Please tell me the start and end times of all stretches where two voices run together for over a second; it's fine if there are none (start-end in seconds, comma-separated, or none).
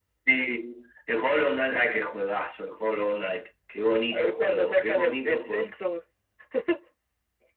4.1-5.7